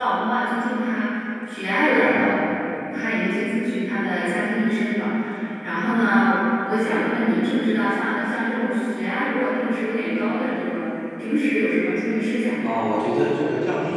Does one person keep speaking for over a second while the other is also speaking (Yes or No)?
No